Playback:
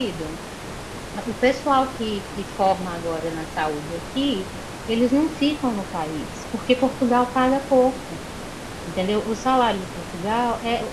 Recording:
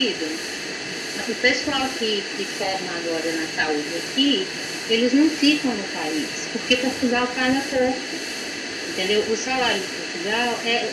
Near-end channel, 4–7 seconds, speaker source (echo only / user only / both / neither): echo only